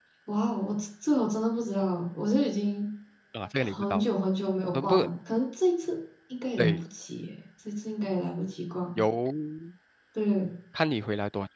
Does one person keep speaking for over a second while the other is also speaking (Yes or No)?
No